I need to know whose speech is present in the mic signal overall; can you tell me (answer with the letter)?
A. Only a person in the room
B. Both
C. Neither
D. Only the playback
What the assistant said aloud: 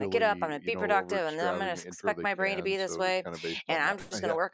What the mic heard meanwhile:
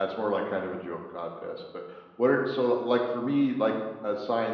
A